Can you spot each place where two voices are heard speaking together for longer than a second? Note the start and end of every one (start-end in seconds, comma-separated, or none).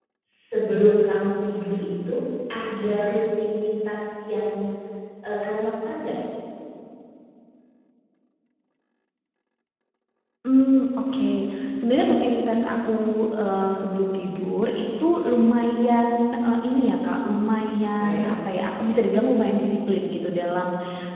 none